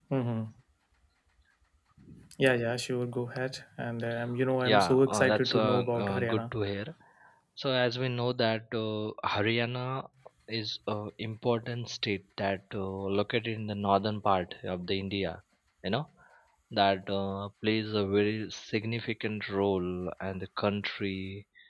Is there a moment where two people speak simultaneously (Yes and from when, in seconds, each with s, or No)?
Yes, from 4.6 s